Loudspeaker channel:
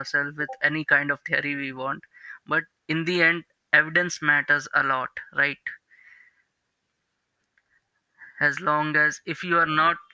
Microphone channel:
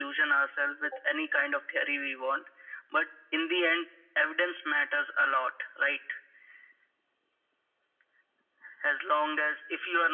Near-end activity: none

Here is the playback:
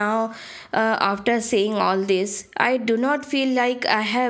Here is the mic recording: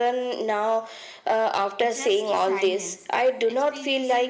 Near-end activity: present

